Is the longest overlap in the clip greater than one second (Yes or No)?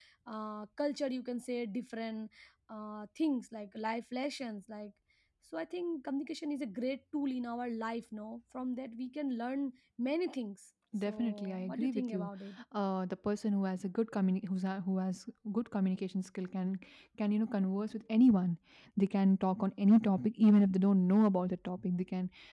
Yes